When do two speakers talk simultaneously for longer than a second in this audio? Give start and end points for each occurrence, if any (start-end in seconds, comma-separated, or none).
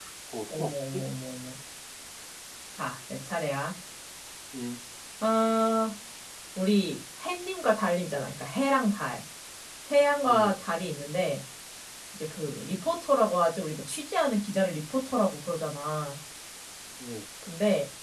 none